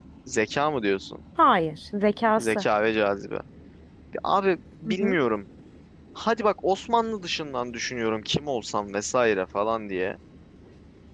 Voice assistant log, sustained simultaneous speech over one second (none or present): none